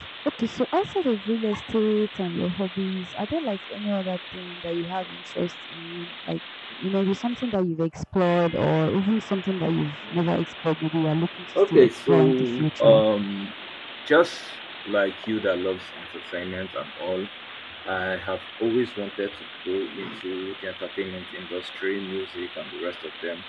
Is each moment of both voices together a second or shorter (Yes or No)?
No